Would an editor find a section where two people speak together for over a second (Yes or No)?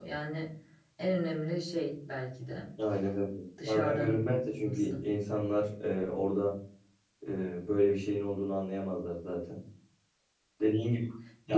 Yes